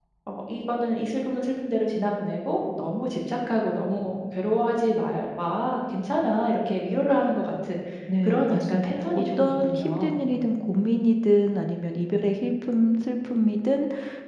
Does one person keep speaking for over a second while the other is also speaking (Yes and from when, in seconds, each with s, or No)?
Yes, from 8.2 s